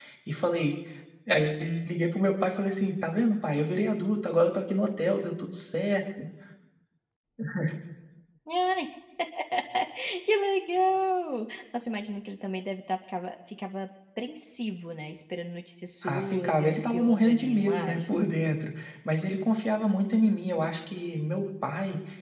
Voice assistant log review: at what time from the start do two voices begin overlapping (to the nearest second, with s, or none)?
16 s